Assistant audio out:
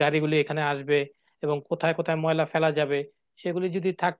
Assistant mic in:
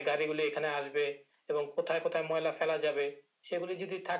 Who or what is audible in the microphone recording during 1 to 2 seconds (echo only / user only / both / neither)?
echo only